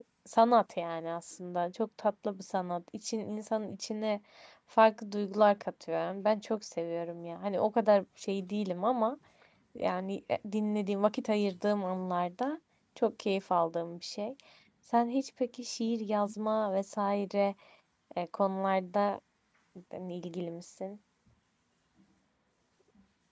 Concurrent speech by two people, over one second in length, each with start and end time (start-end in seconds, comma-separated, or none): none